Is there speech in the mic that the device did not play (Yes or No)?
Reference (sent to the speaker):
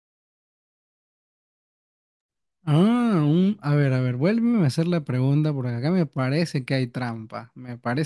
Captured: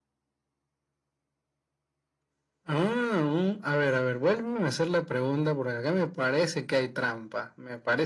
No